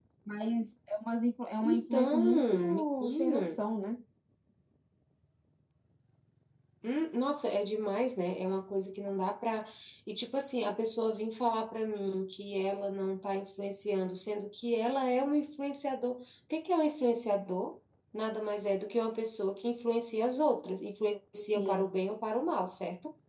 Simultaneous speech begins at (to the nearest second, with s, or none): 2 s